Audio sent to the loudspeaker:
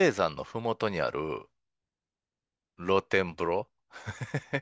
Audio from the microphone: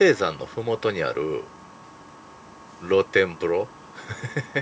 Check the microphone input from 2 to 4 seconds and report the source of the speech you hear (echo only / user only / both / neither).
echo only